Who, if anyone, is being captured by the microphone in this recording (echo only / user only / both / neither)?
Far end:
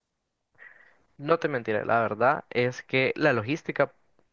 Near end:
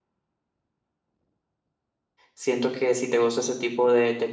user only